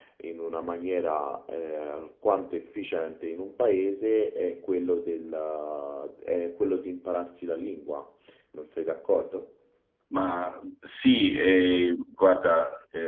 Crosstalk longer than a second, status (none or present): none